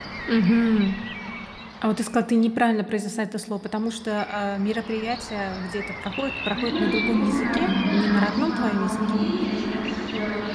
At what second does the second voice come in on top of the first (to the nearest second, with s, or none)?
7 s